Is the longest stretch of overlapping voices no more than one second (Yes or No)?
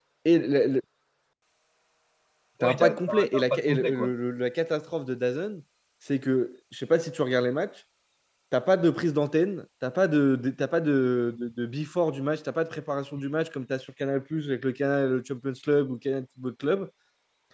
No